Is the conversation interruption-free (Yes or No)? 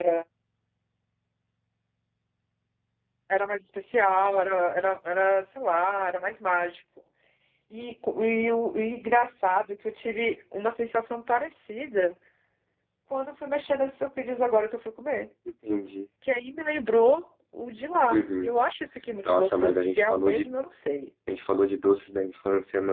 No